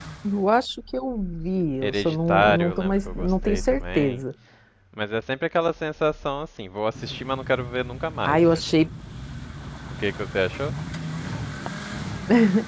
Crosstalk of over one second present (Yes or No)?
Yes